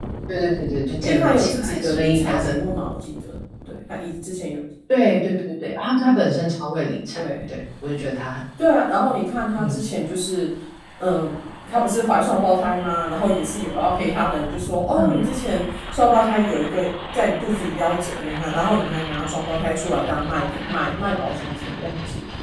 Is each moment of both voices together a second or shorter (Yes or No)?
No